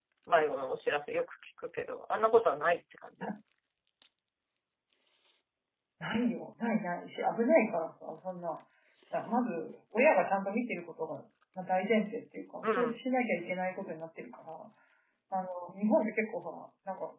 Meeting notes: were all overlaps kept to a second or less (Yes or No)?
Yes